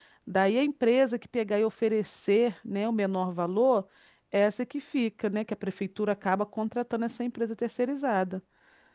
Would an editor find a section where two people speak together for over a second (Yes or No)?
No